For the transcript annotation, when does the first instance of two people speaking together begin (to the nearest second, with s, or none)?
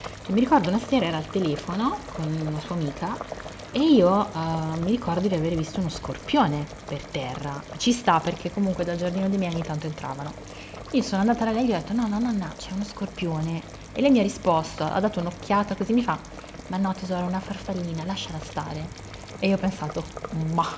none